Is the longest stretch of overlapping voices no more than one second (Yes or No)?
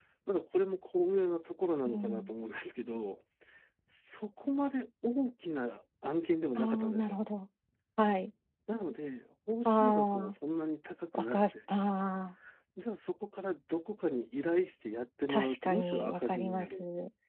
No